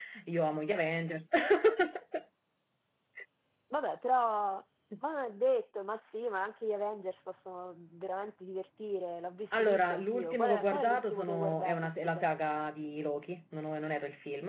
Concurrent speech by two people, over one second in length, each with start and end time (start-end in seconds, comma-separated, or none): 9.5-12.3